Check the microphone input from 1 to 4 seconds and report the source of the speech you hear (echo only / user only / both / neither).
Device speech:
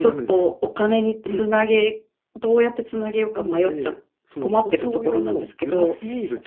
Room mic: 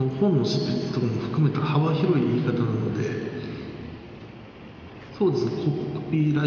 user only